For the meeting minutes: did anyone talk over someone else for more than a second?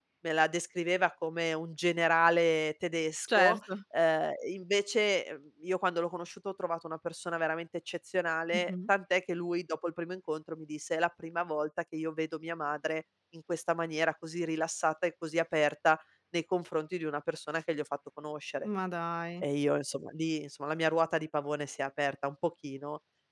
No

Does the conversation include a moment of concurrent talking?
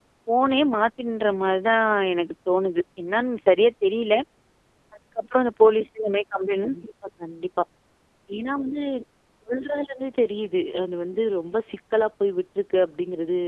No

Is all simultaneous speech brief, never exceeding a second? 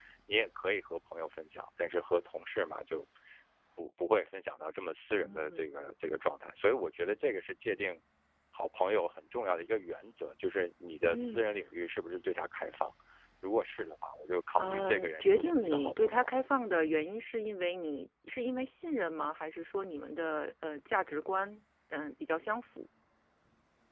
No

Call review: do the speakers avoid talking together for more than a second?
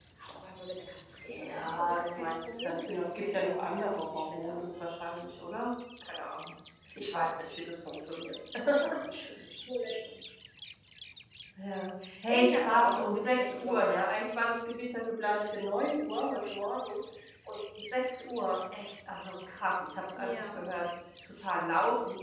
No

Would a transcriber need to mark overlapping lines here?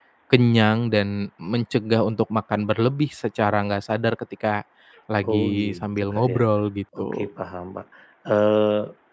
Yes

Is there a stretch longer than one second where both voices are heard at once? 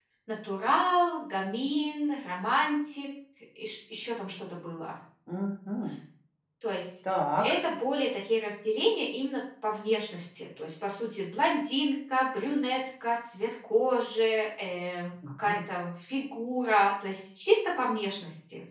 No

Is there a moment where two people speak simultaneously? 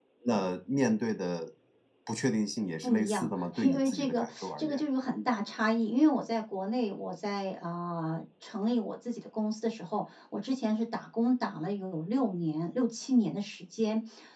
Yes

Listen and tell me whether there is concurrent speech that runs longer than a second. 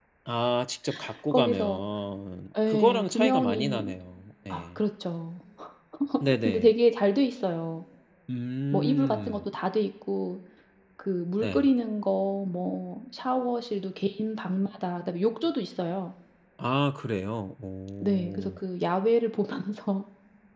Yes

